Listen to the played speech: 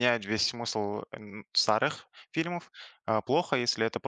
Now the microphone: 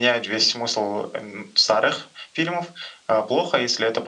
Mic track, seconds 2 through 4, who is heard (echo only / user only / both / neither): echo only